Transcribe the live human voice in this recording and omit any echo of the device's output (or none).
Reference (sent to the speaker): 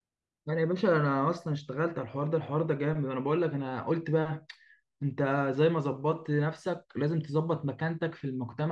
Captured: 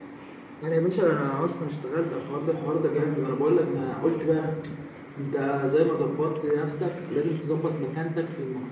none